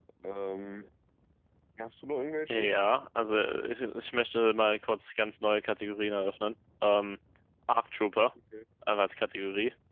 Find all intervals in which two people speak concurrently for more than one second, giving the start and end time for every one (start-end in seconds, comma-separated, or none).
none